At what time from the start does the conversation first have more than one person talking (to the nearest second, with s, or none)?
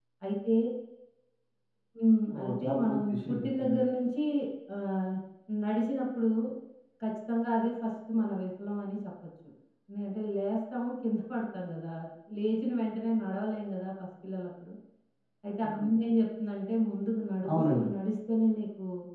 2 s